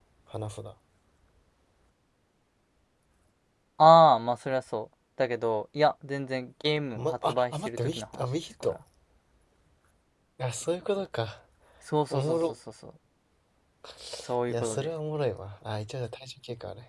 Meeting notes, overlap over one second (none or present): present